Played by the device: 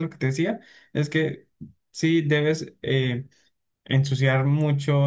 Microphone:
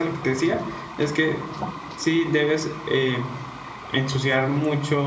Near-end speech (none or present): none